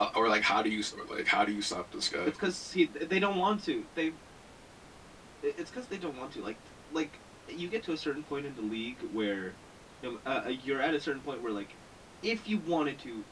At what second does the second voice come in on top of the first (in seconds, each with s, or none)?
none